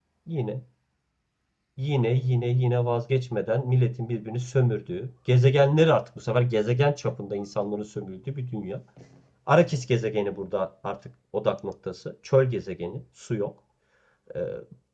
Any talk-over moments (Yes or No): No